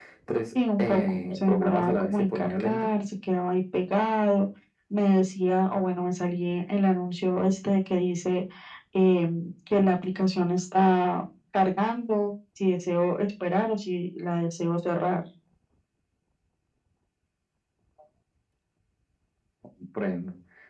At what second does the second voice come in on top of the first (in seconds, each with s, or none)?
0.8 s